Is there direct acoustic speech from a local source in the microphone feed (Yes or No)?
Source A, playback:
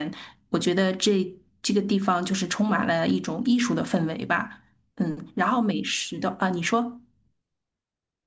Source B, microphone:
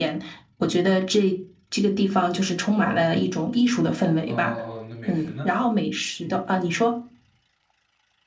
Yes